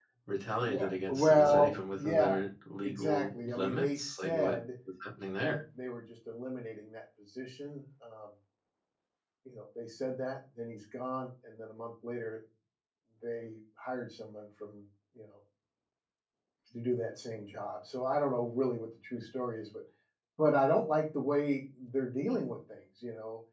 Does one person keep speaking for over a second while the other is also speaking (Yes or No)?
Yes